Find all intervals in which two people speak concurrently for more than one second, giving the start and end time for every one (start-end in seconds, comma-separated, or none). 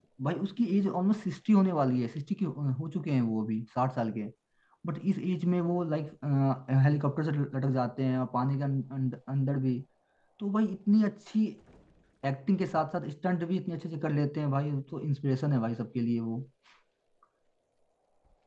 none